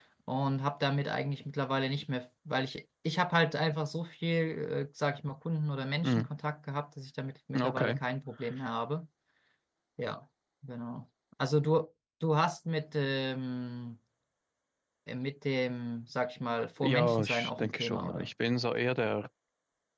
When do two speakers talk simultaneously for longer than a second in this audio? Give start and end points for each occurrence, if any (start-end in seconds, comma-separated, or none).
16.8-18.3